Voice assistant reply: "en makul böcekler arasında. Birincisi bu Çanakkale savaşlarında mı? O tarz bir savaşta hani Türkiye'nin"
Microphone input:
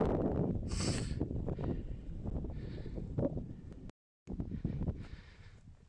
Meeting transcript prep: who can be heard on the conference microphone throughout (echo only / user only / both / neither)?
neither